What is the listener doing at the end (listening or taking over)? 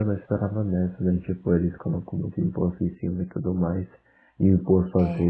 listening